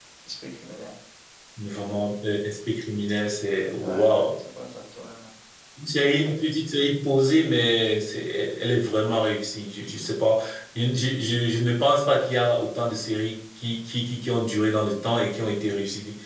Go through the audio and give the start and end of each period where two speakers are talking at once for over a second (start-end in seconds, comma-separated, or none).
none